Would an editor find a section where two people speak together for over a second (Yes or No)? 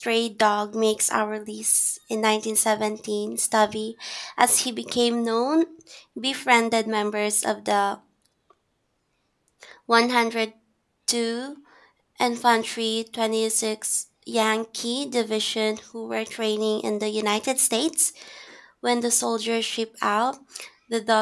No